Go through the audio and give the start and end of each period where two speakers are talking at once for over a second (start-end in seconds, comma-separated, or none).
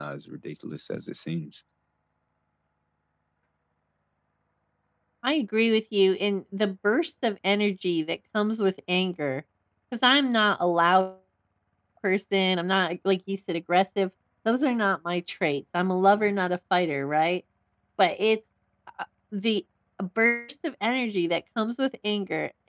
none